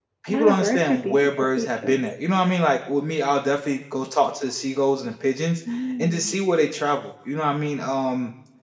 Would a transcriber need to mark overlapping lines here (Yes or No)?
Yes